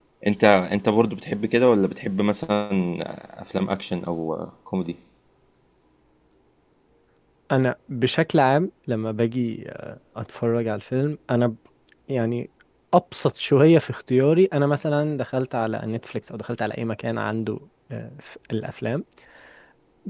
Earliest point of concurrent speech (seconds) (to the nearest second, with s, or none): none